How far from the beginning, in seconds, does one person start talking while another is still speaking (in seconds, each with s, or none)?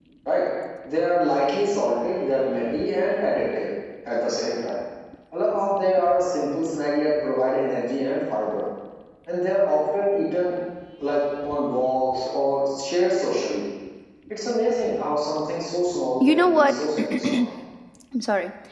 16.2 s